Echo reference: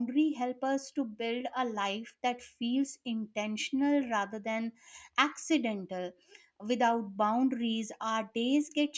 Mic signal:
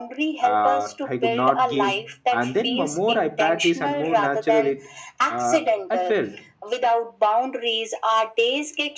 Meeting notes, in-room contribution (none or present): present